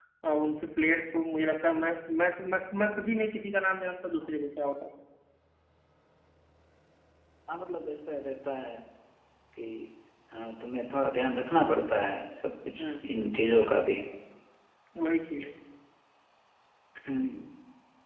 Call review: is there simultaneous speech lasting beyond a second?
No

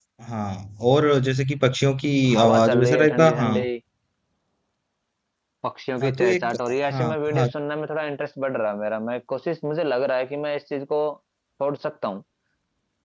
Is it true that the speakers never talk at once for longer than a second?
No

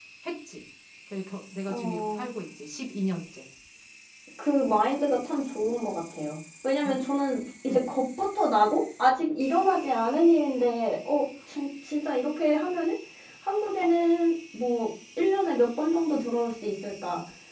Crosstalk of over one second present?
No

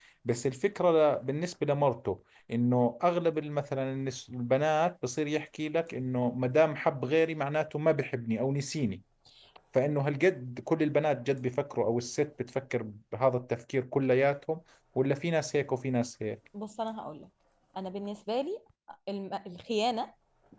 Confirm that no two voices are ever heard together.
Yes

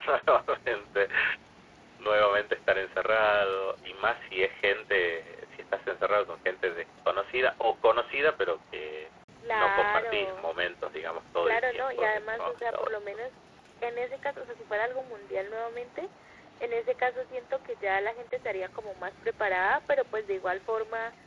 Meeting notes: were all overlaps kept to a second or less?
No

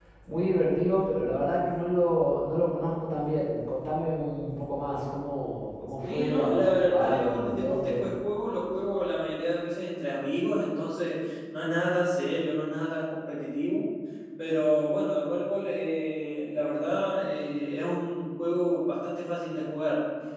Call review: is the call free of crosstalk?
No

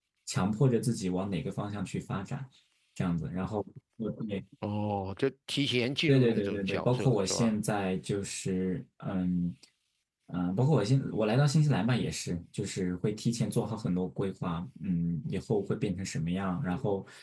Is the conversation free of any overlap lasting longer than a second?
No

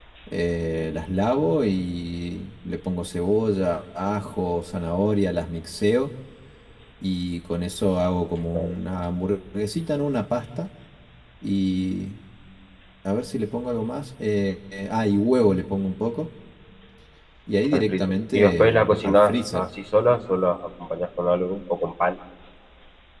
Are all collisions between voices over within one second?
No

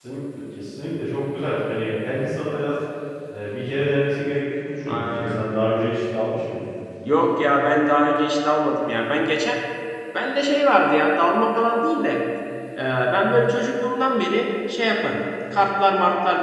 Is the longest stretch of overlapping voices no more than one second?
Yes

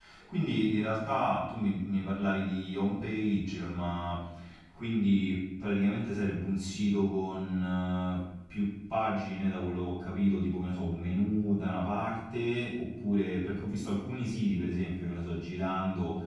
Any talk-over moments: No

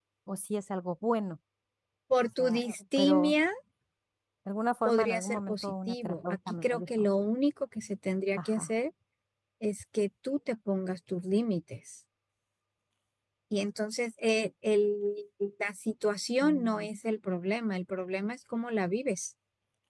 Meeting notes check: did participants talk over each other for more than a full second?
Yes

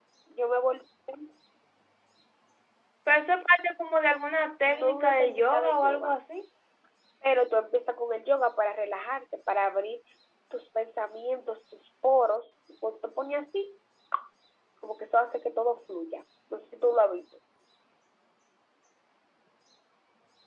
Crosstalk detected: Yes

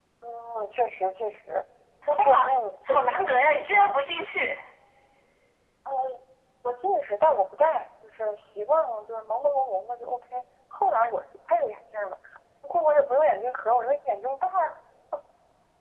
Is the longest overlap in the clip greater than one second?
No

